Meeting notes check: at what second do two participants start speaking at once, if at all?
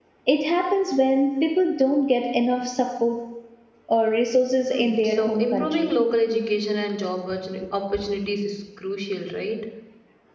5 s

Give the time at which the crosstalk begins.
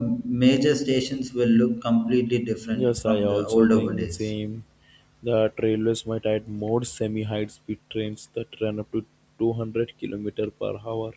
3 s

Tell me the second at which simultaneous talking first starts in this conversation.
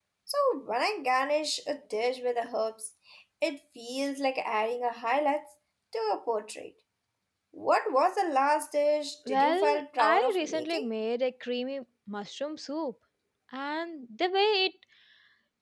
9 s

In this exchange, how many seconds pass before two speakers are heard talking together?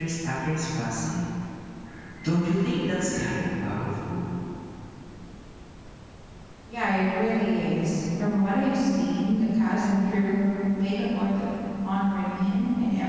none

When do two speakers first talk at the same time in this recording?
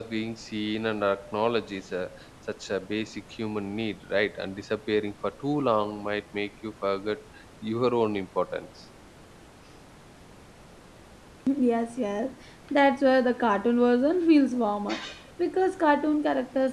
none

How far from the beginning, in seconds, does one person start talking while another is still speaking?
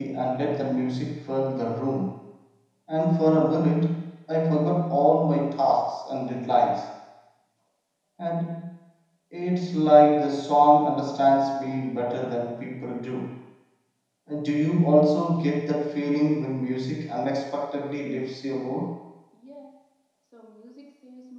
none

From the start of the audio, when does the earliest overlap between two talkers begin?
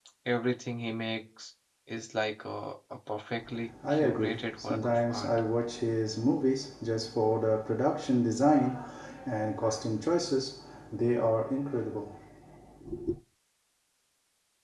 4 s

